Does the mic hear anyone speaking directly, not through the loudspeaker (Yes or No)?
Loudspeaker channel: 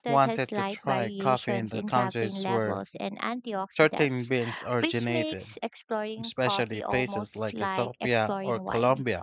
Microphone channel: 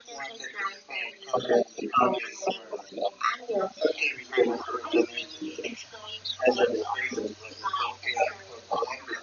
No